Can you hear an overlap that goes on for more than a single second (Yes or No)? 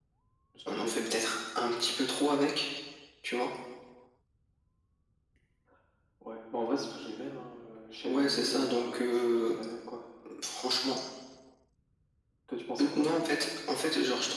Yes